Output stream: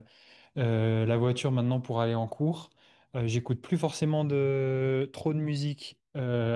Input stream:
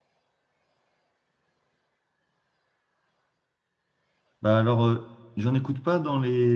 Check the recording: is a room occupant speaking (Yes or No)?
Yes